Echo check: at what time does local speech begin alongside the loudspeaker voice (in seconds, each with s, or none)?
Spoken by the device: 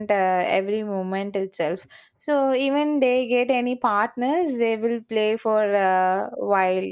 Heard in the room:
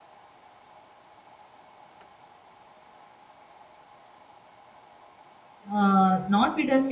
5.7 s